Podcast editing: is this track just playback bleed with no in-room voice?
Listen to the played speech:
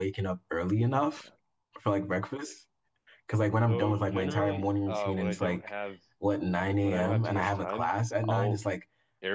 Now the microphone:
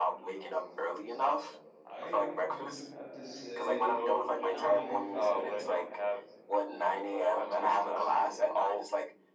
No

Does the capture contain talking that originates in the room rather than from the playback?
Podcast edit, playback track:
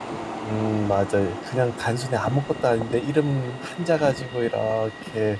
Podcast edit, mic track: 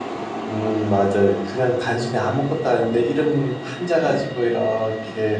No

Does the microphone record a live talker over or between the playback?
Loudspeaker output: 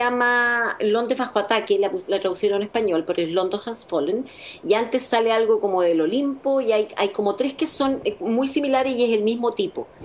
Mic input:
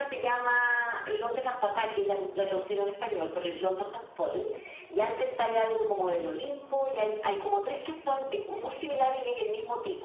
No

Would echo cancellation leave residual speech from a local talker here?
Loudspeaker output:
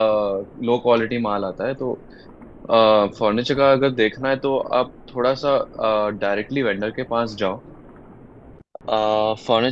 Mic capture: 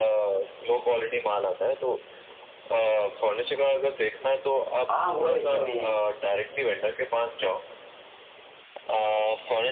Yes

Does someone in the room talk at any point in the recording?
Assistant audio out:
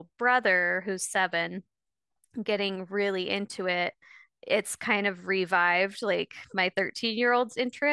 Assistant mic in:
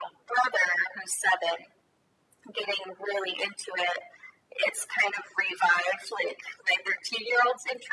No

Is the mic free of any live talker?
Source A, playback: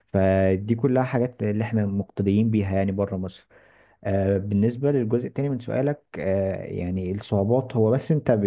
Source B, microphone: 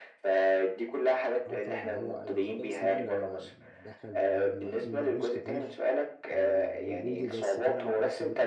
No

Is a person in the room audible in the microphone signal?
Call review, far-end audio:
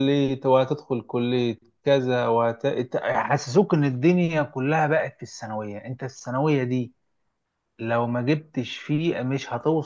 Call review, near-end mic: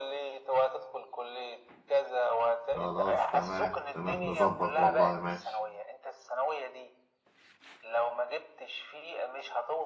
Yes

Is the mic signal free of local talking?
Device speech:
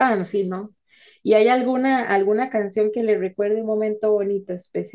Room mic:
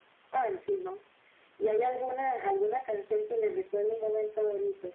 Yes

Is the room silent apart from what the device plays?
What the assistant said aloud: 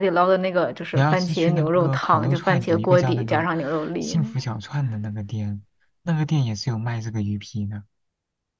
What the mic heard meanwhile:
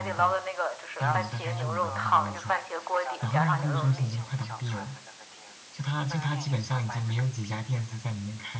No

